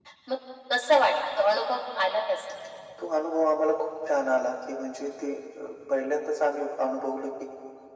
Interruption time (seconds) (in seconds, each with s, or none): none